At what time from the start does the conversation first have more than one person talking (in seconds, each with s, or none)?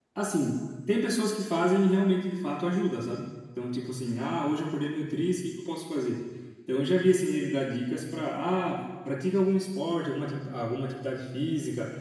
none